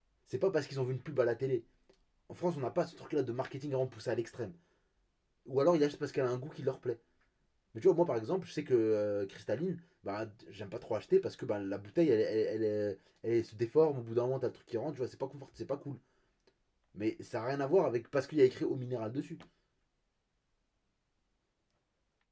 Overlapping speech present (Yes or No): No